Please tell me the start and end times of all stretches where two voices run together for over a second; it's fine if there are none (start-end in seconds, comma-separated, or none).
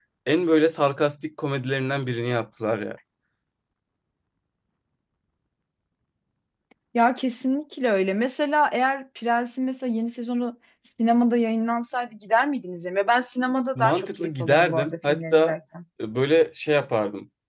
13.8-15.5